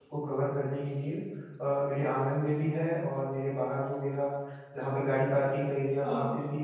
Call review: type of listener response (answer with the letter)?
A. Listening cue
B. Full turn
A